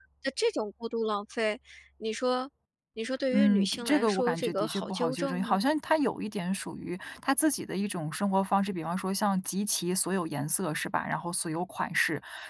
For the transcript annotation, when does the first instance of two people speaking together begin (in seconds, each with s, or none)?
3.3 s